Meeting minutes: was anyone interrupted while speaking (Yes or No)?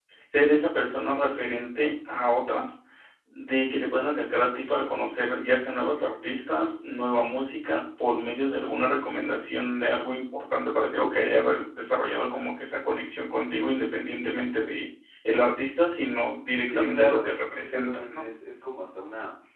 Yes